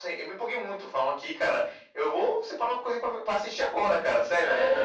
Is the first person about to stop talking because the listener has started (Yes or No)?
Yes